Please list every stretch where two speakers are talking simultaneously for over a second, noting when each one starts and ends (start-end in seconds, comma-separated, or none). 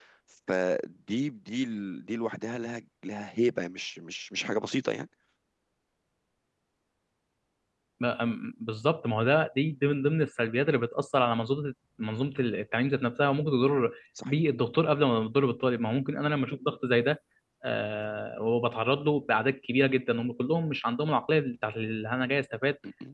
none